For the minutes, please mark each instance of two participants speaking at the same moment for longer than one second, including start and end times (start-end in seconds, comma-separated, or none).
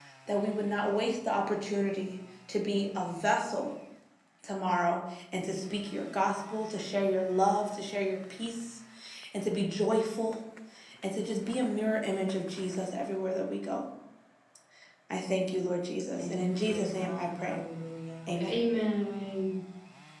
16.2-17.6